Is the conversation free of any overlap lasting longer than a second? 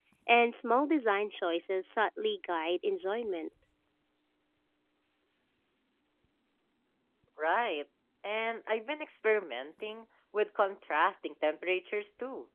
Yes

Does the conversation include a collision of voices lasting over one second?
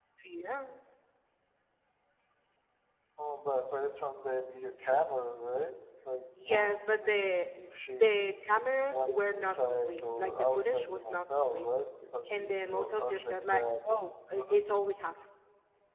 Yes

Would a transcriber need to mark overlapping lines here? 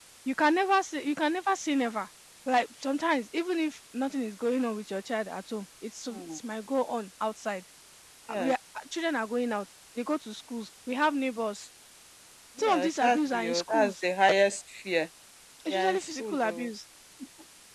Yes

